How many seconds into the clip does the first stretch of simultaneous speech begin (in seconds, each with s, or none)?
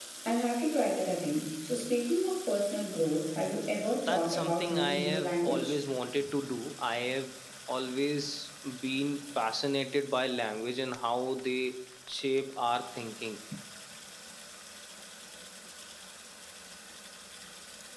4.1 s